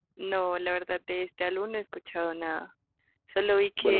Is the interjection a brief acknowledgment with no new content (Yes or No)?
Yes